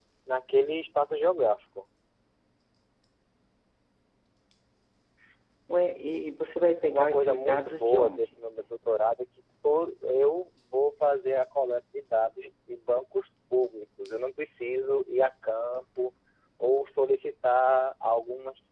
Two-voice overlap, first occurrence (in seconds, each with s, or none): 6.9 s